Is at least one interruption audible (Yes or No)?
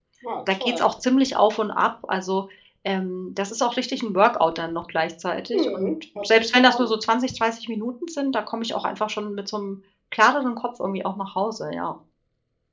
Yes